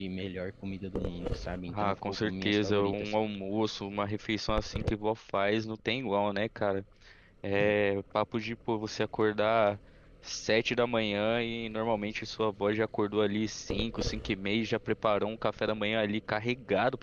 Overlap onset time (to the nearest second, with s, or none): 2 s